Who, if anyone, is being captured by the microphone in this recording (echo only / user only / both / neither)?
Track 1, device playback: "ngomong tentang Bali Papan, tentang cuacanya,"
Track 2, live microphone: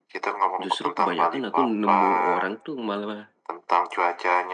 both